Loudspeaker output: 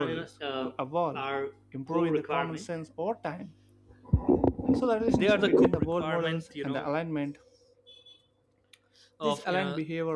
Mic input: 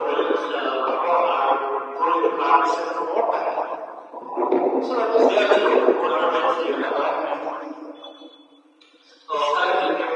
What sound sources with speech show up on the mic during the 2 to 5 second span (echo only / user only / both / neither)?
echo only